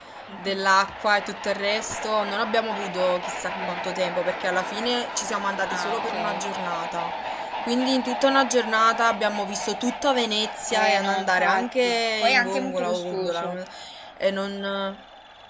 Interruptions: present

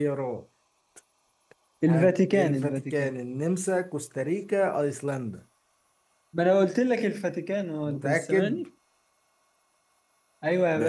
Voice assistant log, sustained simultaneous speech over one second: present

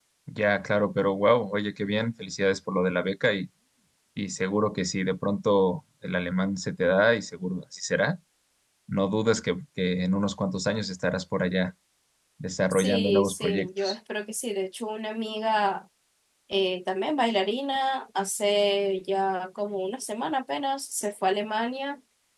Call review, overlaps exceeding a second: present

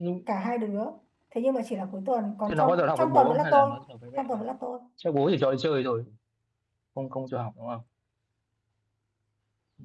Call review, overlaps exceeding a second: present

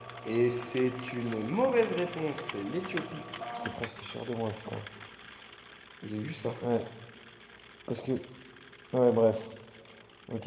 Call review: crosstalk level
none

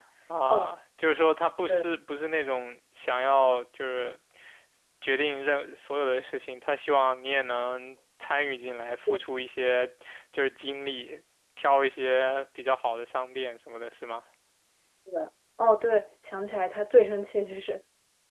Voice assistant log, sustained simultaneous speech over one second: none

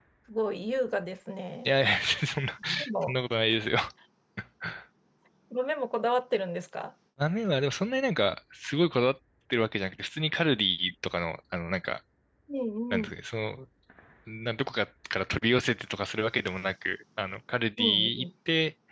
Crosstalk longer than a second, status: none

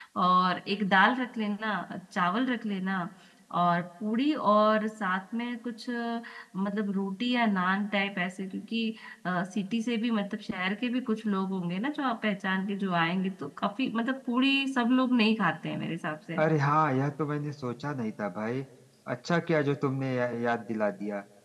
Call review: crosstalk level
none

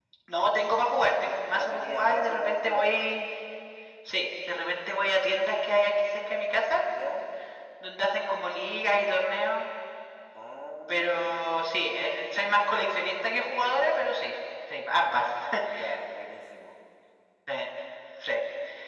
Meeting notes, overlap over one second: present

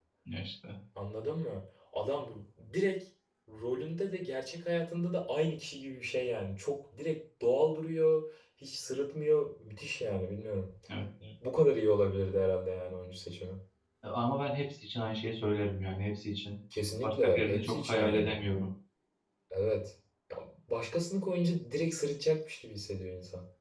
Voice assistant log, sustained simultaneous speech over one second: present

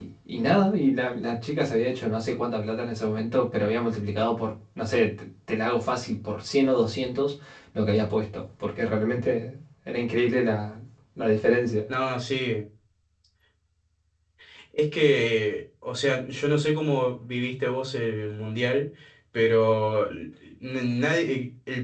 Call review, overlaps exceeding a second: none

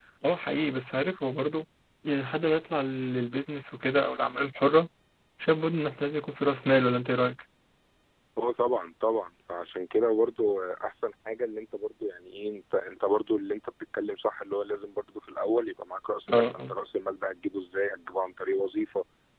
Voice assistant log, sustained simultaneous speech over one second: none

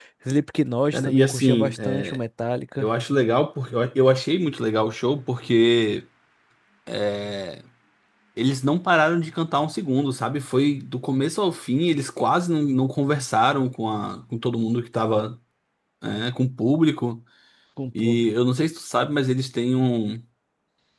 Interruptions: present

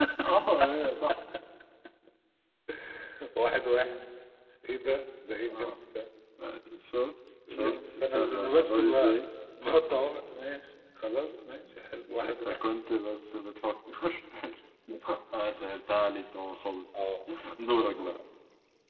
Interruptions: present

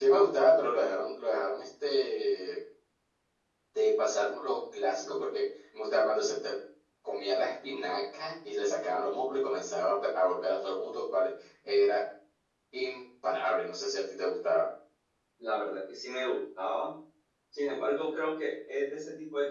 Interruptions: none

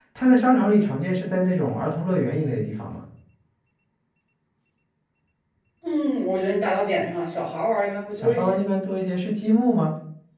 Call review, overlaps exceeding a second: none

